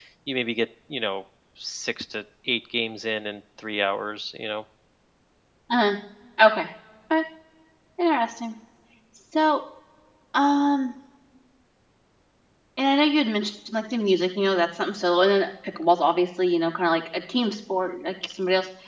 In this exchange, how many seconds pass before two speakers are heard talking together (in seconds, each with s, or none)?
none